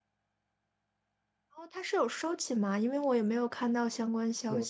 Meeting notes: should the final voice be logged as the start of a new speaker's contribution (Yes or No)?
Yes